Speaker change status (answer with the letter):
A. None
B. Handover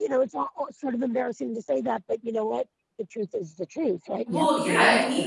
B